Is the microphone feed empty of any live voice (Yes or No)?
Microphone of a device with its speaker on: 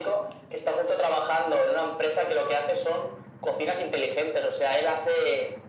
Yes